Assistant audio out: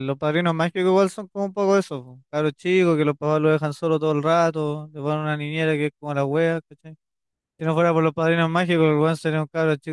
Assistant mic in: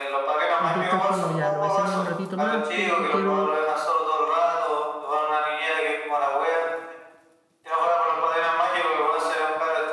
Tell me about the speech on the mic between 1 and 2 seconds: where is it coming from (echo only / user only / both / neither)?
both